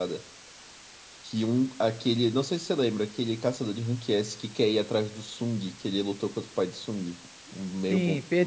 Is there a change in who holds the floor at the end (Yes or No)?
Yes